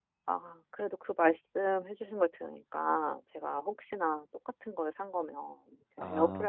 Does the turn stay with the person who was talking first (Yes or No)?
Yes